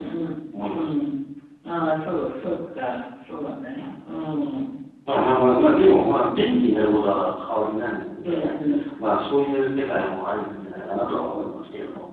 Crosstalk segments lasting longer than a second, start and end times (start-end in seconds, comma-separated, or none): none